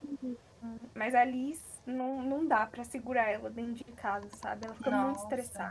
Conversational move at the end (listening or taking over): taking over